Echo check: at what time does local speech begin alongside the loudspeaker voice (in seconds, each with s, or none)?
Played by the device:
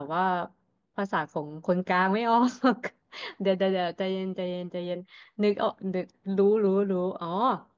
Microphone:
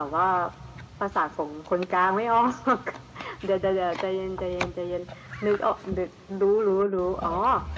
none